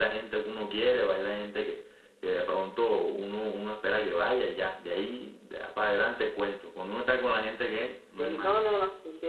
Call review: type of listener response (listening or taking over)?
taking over